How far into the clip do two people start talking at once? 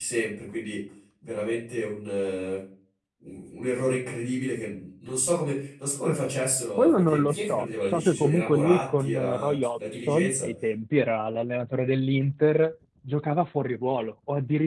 6.8 s

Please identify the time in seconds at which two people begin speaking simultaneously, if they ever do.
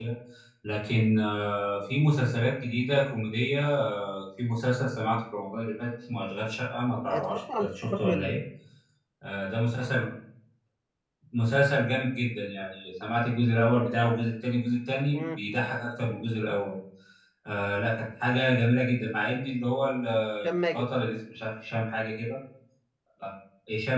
7.1 s

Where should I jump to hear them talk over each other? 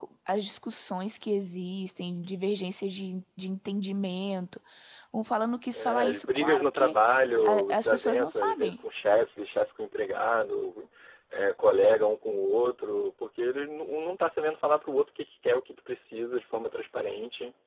5.7 s

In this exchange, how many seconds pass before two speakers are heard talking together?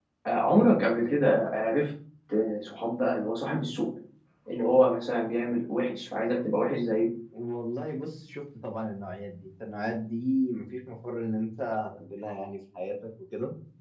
none

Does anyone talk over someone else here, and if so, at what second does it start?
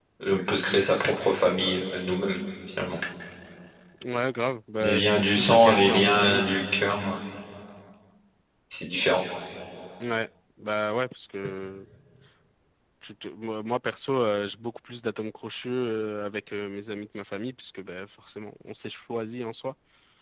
4.8 s

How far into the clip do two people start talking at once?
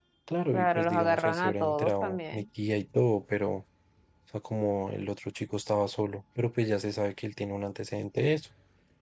0.5 s

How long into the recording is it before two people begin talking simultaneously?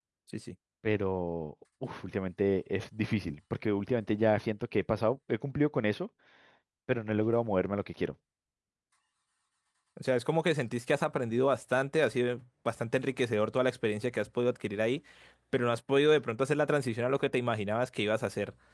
none

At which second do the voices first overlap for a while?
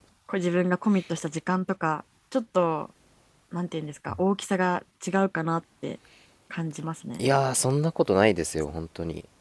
none

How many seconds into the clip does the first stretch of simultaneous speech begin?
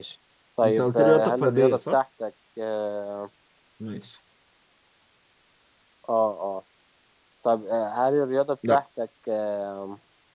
0.6 s

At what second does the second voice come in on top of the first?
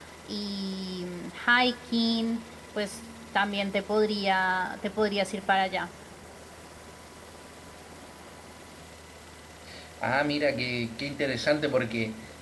none

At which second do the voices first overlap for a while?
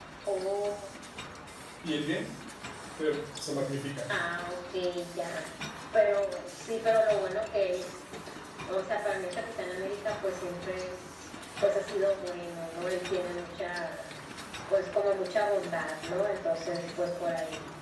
none

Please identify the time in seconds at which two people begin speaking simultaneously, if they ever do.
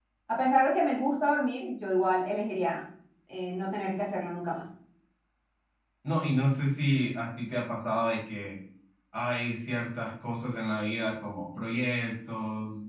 none

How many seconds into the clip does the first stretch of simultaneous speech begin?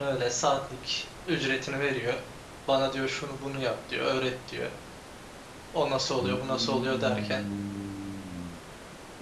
6.2 s

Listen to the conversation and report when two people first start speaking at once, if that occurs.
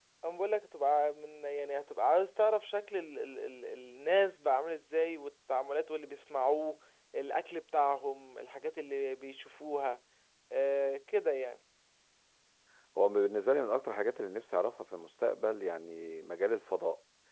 none

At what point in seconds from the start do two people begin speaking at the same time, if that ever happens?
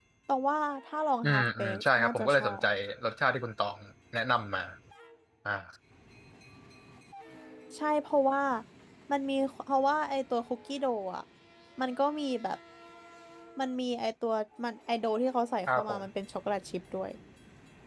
1.2 s

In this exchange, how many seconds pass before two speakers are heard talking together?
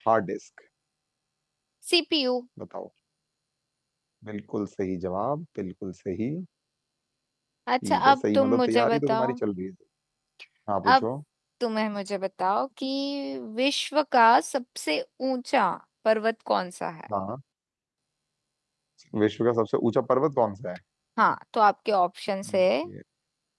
7.8 s

